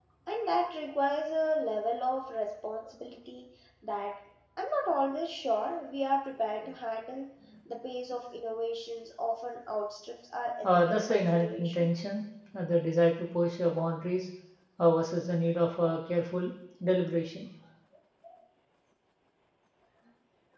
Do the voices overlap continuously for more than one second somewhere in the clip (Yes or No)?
Yes